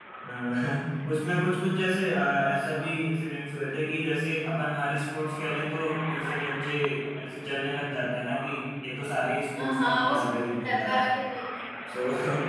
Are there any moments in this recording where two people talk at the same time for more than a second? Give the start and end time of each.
9.6-11.0

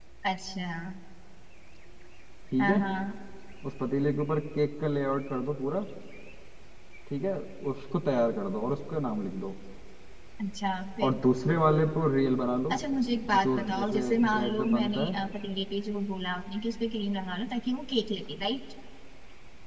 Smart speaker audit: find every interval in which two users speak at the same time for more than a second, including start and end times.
13.4-15.1

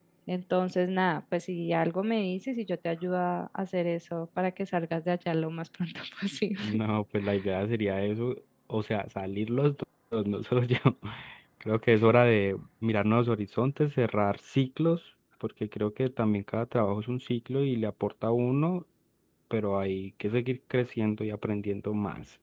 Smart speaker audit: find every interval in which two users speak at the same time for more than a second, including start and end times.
none

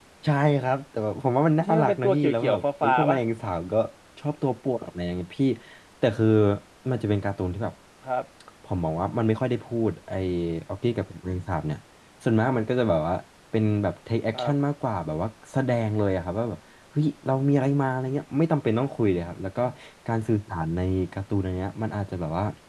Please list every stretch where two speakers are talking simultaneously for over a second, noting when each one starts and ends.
1.6-3.2

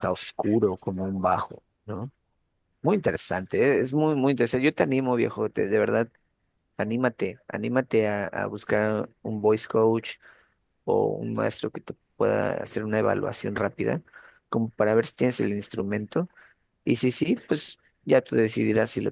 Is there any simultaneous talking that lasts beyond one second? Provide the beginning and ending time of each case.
none

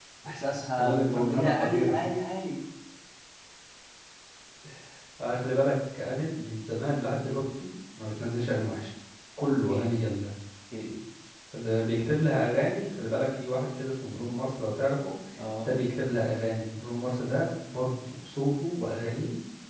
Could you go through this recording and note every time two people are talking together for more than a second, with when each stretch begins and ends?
0.8-2.0

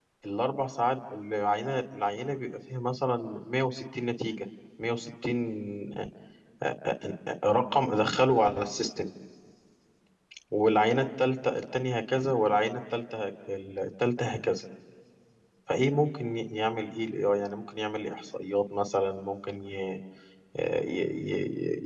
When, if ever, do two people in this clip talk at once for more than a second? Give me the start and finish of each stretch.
none

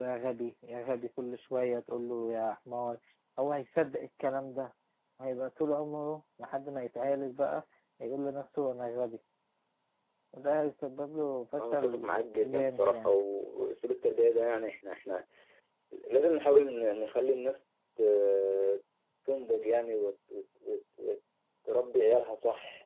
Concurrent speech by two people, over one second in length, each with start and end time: 11.6-13.1

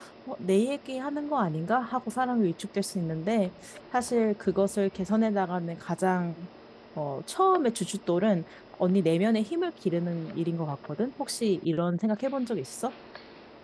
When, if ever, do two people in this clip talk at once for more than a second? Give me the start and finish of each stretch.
none

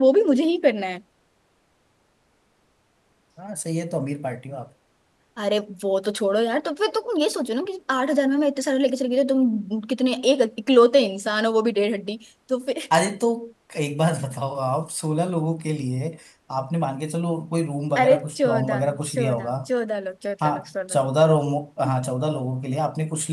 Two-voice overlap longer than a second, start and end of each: 18.0-19.5

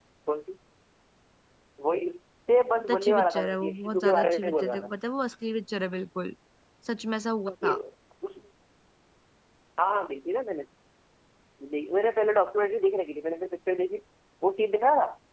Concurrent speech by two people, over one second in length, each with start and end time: 2.8-4.9

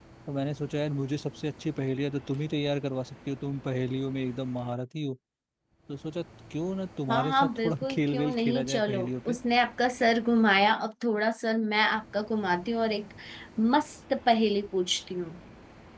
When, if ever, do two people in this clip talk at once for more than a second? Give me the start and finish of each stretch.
7.1-9.4

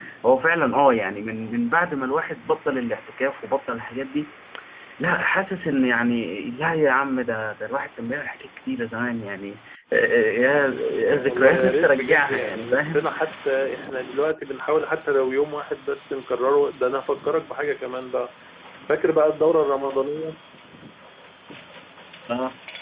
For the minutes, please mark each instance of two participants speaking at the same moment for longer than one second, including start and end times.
11.1-13.0

